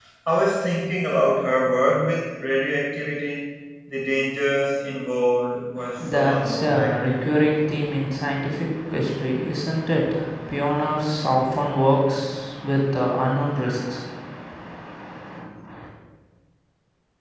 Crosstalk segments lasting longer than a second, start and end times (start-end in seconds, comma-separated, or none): 6.0-7.2